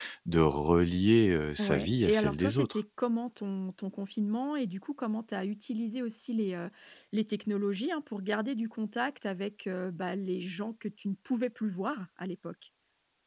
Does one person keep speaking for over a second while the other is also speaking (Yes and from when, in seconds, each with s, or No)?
Yes, from 1.6 s